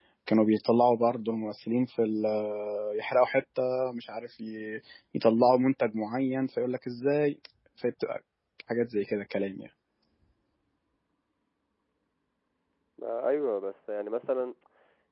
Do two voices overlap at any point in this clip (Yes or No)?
No